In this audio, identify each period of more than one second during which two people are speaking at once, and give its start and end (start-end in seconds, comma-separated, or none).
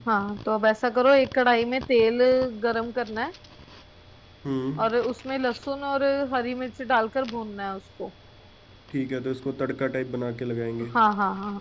none